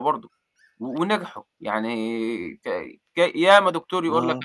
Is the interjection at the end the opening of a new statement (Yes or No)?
No